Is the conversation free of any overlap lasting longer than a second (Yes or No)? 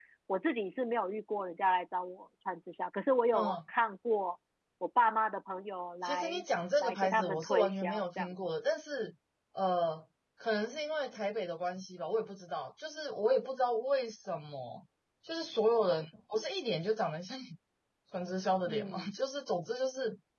No